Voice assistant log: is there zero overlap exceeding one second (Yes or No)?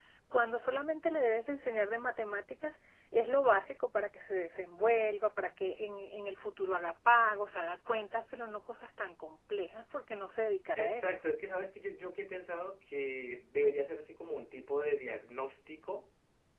Yes